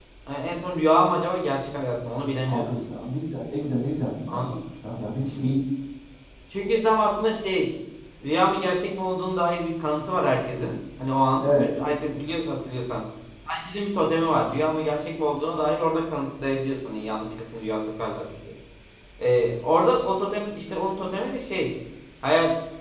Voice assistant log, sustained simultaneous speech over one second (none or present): none